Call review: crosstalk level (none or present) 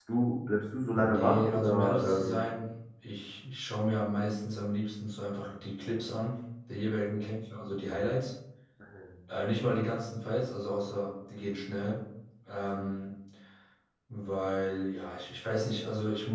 present